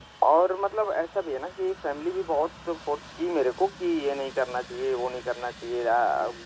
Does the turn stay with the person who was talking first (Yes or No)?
Yes